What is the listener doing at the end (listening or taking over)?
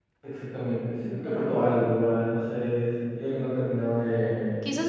taking over